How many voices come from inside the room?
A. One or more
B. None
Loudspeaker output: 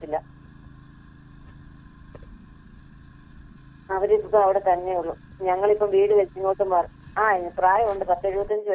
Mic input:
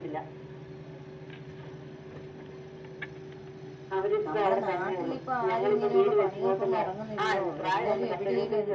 A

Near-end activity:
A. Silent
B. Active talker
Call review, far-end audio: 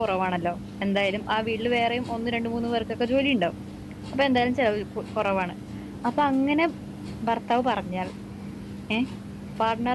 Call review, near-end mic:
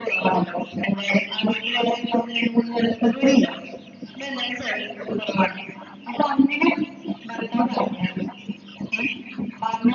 A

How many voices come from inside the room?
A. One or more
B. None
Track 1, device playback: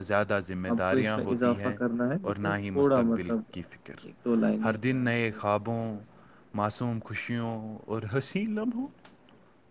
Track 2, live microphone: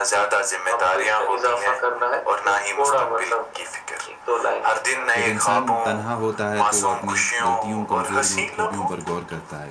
A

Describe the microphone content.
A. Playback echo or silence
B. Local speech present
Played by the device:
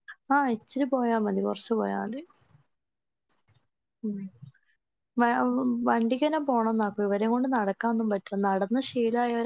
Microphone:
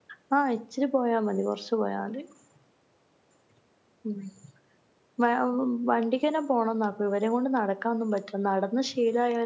A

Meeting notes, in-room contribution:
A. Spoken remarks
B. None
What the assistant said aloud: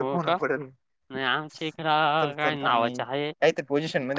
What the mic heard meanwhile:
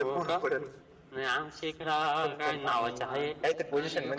A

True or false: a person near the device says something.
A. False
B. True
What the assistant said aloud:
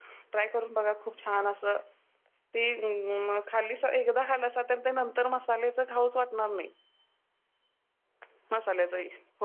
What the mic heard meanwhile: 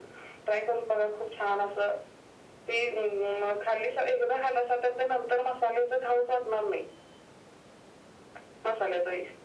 A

